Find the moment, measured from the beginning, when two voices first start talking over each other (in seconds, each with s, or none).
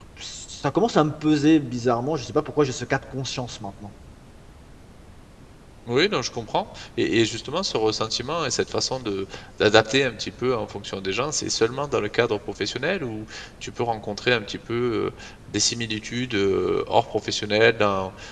none